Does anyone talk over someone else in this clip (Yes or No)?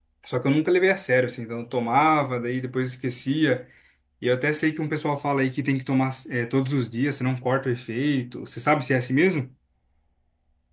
No